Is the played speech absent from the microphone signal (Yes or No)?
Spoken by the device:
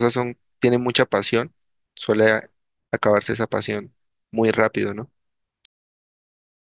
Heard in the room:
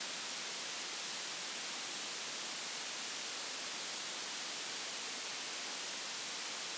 Yes